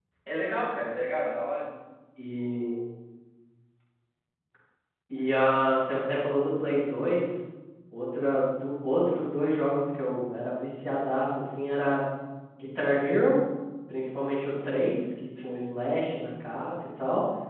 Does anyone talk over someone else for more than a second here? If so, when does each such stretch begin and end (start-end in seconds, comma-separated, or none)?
none